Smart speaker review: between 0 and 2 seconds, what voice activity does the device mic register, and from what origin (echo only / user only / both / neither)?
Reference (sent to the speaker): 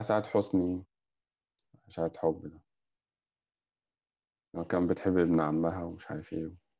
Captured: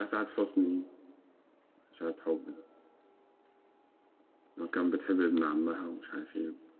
echo only